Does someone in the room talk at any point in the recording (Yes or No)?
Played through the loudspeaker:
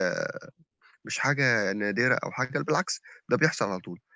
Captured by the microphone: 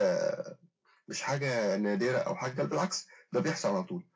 No